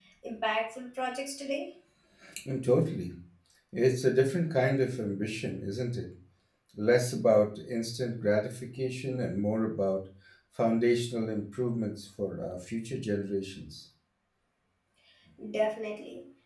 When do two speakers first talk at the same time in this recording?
none

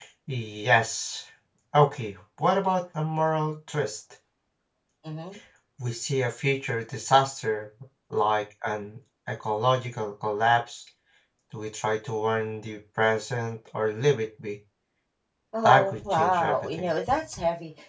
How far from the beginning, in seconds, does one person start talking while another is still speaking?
15.7 s

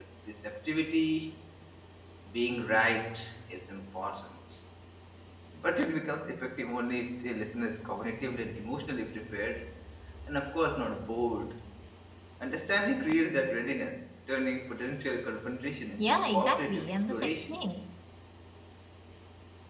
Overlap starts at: 16.0 s

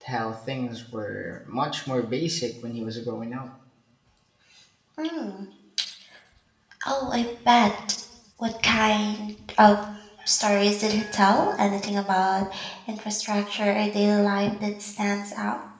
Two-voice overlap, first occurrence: none

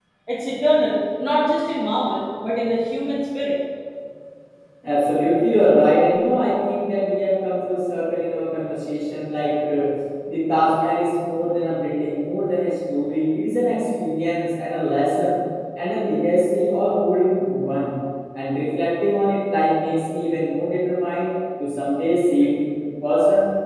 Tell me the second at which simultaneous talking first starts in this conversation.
none

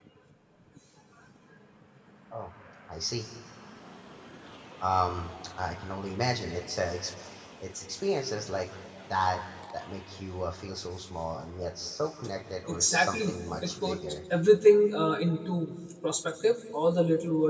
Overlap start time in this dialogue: 12.7 s

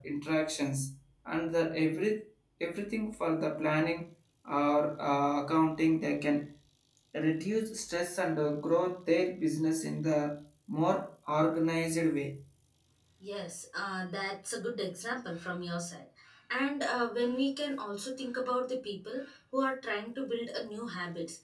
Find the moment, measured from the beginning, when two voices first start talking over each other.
none

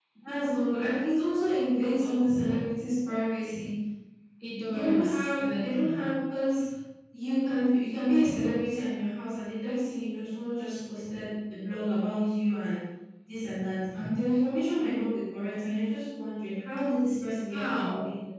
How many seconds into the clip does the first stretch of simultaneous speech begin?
4.7 s

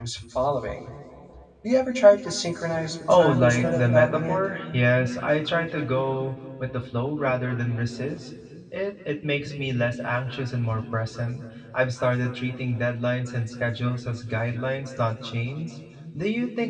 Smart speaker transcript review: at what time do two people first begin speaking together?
3.1 s

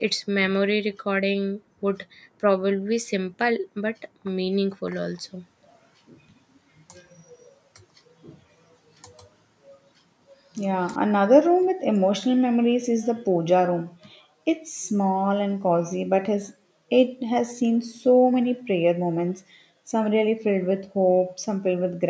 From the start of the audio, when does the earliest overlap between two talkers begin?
none

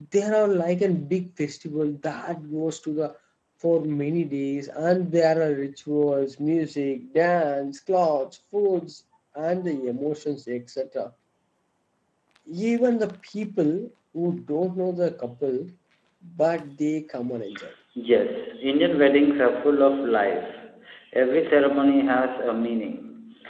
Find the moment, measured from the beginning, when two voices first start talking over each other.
none

